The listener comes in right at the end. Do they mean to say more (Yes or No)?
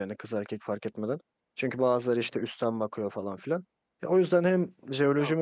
No